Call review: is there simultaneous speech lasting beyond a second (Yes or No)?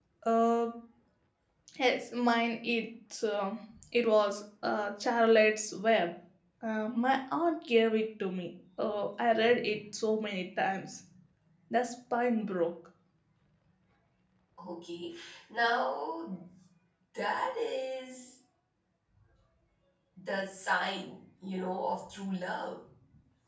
No